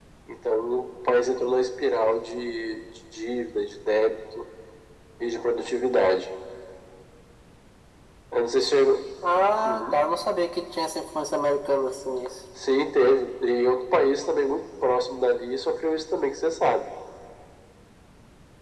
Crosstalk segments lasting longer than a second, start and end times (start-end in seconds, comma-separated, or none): none